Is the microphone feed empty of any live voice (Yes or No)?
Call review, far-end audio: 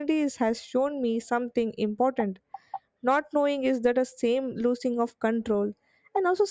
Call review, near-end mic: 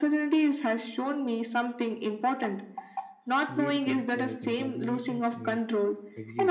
No